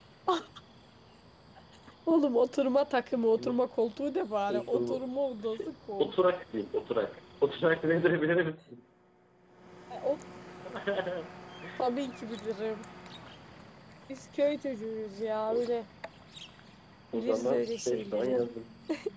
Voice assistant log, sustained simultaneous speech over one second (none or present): present